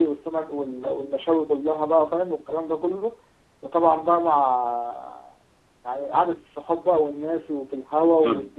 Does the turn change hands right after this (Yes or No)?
Yes